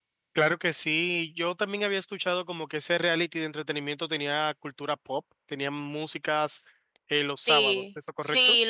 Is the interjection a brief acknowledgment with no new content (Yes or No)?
No